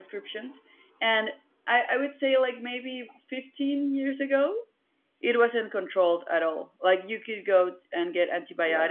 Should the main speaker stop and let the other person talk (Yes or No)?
No